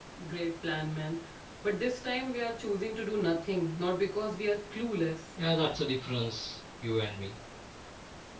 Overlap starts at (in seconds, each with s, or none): none